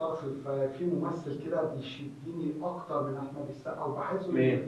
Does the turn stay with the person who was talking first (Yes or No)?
Yes